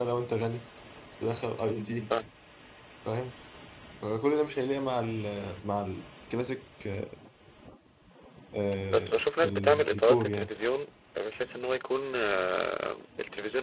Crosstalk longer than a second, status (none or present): present